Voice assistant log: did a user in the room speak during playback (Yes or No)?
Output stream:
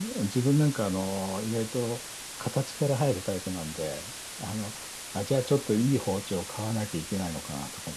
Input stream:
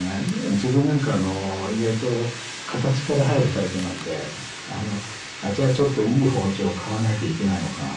No